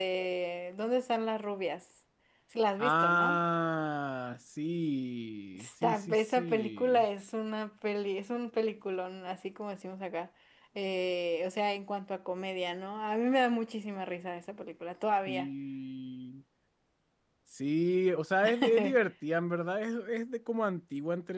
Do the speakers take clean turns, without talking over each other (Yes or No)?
No